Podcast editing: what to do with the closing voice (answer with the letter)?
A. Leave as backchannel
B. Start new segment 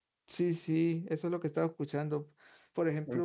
A